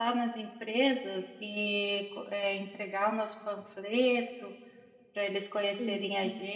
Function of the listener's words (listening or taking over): listening